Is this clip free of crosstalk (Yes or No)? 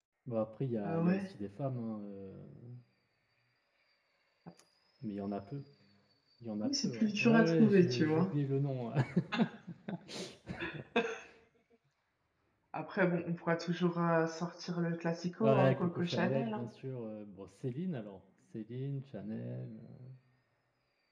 No